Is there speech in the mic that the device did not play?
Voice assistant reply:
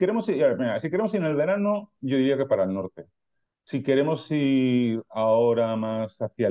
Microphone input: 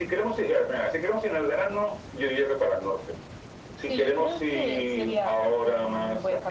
Yes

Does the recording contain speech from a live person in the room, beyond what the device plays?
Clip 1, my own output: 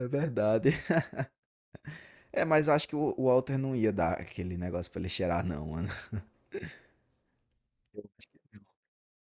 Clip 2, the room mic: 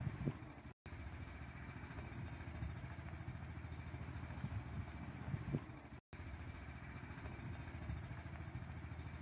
No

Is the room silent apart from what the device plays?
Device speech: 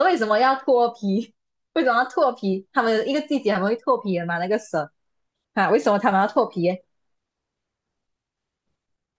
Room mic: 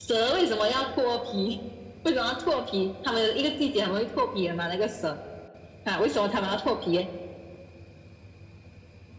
Yes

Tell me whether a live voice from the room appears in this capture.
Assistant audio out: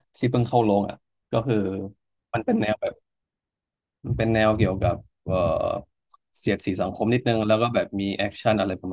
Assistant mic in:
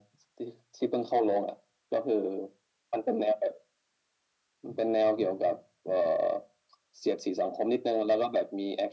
No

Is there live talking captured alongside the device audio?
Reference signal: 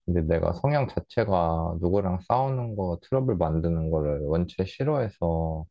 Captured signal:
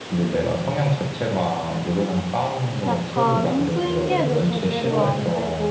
Yes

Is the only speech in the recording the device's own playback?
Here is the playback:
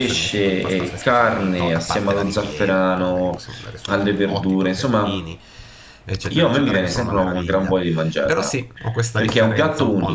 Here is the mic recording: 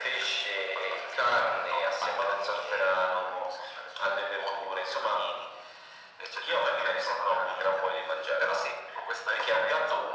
Yes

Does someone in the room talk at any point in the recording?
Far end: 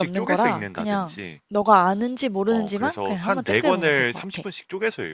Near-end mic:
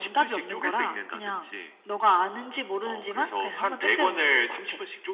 No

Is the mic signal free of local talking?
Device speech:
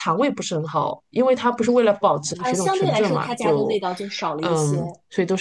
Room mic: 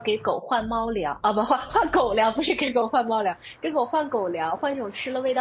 No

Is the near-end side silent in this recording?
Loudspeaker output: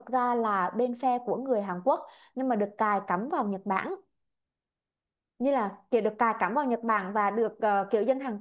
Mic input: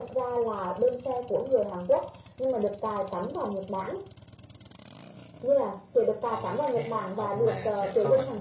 No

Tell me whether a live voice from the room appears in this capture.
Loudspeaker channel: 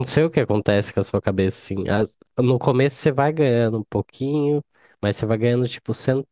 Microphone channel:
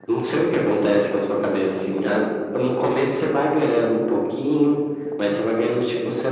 No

